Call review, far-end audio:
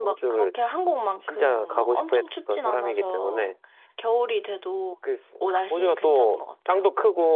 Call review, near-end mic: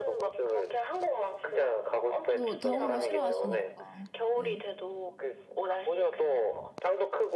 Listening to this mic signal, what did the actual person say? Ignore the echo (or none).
또 더운 거 싫어하시니까. 네,